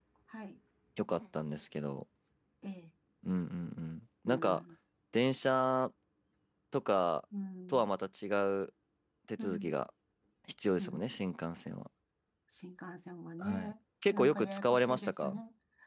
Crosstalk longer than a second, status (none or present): present